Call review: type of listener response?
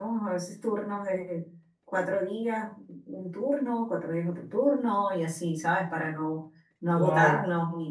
listening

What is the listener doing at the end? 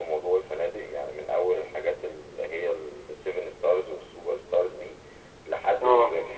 listening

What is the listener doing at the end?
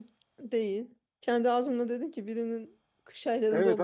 taking over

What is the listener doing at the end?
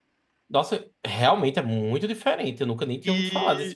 taking over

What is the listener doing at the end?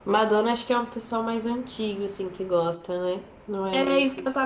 taking over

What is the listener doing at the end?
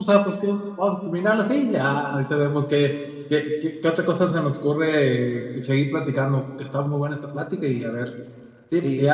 taking over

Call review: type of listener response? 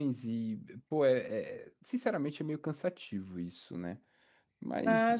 taking over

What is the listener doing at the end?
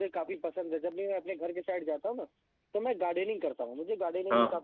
listening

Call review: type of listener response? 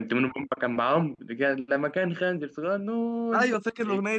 taking over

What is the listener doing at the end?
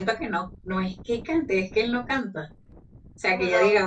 listening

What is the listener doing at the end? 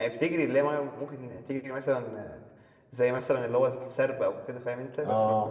taking over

